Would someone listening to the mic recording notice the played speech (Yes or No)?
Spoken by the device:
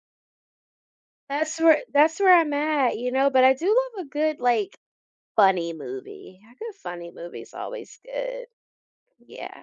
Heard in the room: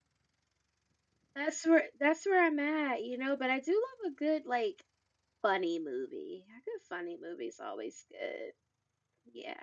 Yes